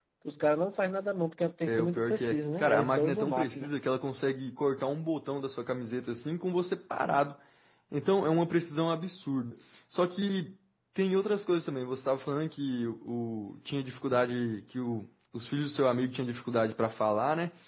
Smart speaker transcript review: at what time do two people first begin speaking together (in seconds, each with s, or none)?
1.7 s